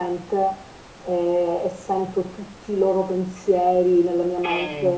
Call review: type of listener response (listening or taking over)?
listening